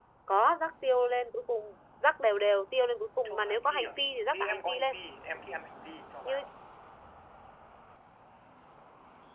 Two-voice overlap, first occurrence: 3 s

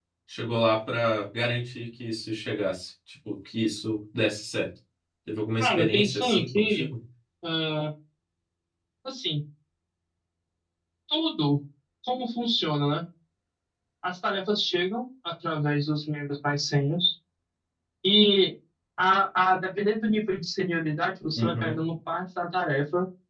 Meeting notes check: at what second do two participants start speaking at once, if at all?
6 s

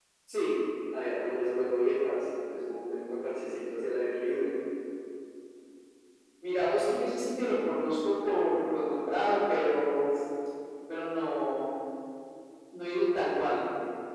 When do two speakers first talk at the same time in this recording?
none

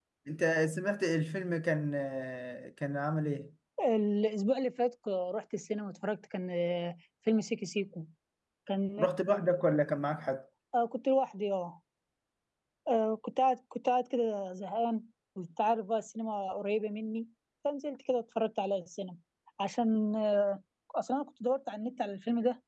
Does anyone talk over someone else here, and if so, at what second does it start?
none

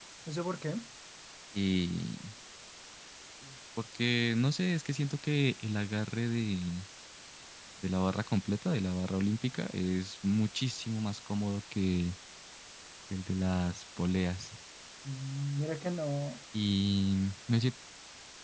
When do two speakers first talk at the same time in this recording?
none

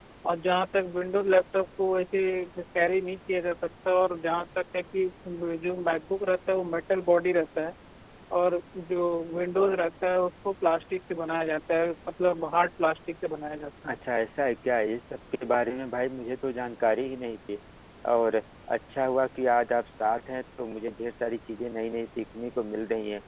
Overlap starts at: none

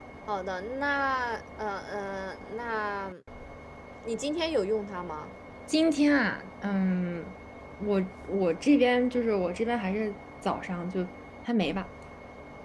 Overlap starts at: none

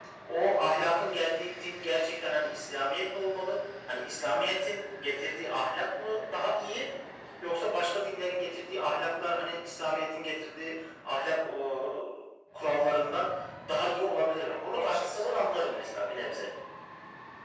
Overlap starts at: 14 s

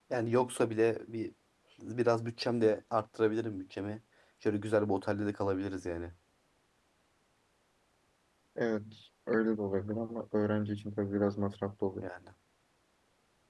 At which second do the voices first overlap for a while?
none

